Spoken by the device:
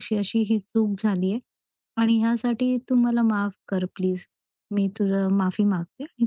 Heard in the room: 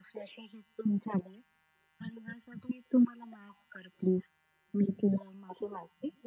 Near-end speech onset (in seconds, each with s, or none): none